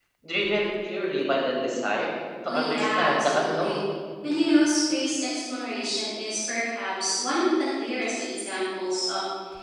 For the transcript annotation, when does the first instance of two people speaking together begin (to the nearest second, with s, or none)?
2 s